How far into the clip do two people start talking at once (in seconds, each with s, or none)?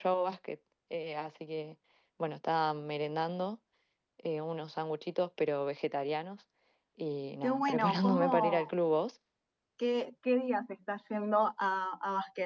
7.4 s